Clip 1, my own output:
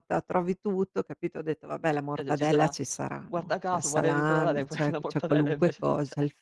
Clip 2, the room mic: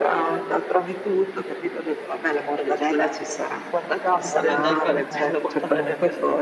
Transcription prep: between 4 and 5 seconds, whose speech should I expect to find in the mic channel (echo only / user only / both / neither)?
both